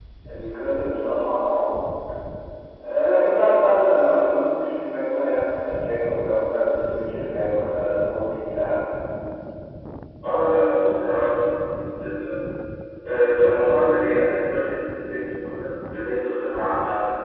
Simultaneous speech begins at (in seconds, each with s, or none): none